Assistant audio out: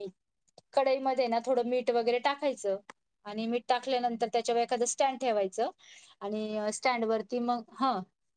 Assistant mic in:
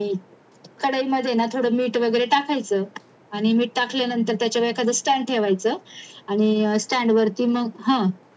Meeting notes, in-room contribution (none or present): none